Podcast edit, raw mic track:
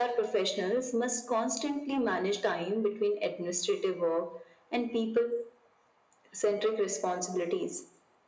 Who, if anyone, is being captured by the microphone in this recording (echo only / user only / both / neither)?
echo only